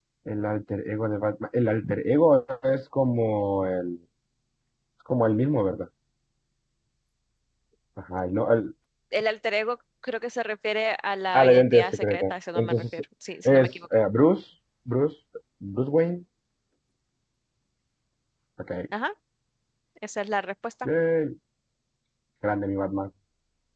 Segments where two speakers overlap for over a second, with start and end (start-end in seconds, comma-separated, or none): 11.3-12.8